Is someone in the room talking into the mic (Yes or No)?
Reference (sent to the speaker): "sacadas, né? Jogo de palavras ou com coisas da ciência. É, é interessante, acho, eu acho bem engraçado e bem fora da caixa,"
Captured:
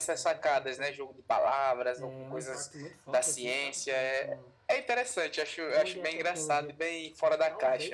Yes